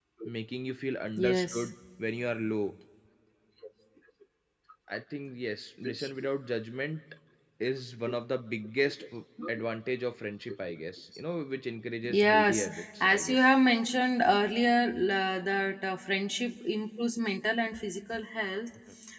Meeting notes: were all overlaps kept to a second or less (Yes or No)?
No